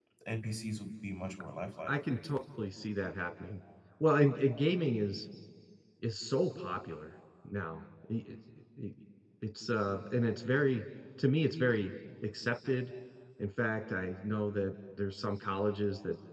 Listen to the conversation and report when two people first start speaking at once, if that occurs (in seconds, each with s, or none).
none